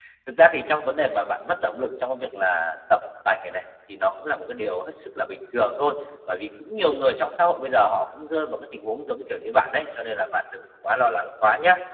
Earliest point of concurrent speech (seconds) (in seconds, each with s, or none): none